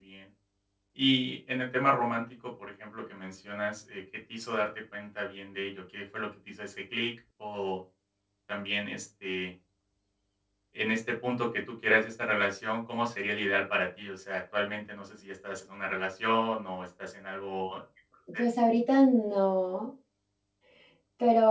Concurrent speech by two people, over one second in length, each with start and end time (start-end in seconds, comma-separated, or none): none